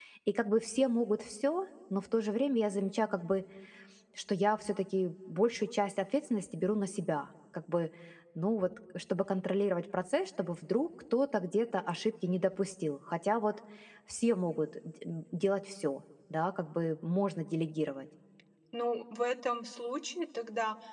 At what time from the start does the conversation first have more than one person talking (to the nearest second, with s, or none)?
none